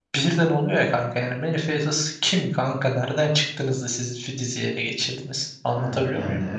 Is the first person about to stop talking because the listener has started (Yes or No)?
Yes